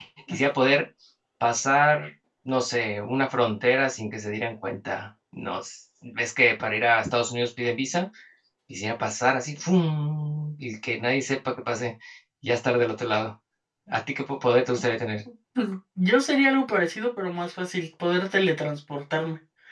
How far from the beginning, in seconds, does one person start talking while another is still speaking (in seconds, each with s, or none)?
none